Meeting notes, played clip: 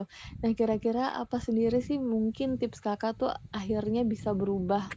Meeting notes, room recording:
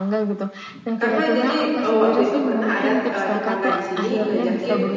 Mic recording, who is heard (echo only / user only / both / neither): both